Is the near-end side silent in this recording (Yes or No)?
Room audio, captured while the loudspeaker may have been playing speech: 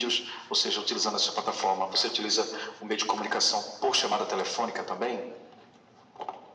Yes